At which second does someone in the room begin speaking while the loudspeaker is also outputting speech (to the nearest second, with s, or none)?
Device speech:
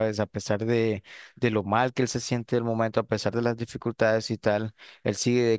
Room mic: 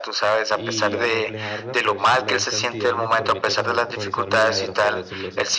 1 s